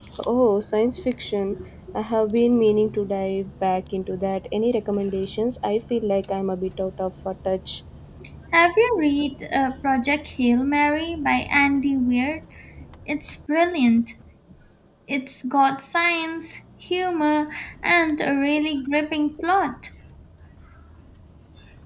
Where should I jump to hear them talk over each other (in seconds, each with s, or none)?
none